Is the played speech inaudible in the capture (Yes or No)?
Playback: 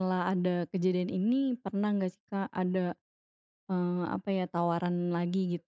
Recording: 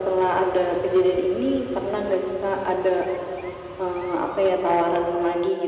No